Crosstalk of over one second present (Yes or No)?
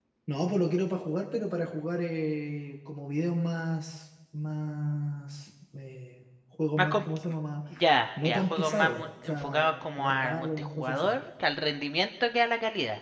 Yes